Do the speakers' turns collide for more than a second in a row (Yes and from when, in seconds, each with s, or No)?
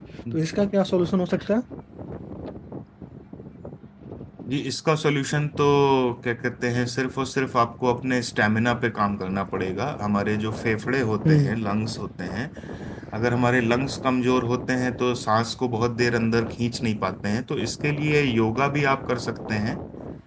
No